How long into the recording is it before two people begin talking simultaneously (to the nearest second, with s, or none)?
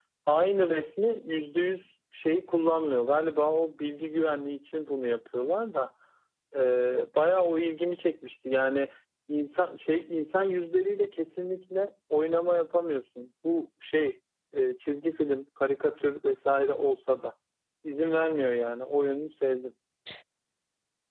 none